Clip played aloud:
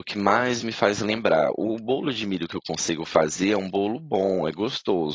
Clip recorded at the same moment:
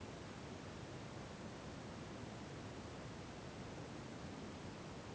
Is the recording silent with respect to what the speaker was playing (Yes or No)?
Yes